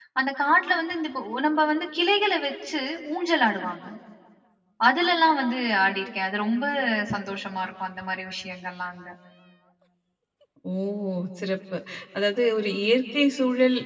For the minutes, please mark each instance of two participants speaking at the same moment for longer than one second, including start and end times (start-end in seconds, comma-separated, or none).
none